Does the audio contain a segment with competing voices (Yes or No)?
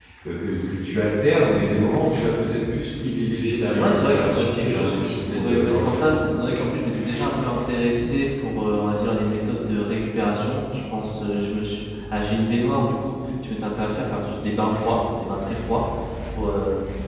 Yes